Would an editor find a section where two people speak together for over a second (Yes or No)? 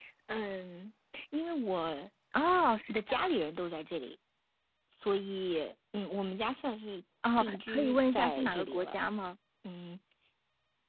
Yes